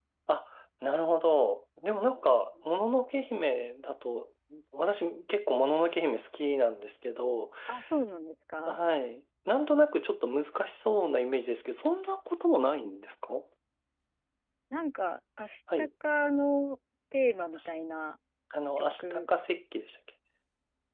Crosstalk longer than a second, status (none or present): none